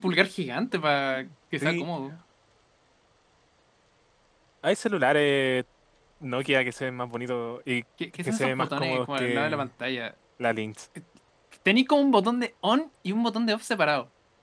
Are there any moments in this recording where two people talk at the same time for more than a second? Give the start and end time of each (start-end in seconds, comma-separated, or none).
8.2-9.7